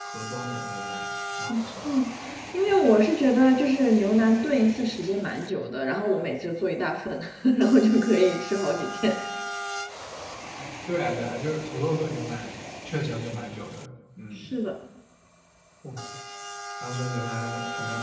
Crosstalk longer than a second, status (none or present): none